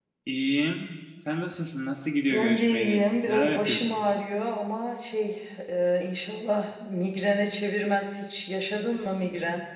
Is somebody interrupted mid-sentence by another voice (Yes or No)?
Yes